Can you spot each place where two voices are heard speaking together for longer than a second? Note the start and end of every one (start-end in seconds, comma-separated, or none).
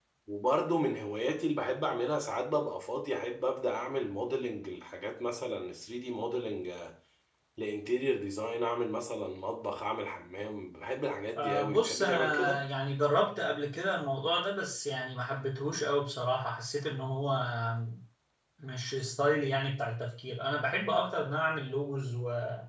11.4-12.6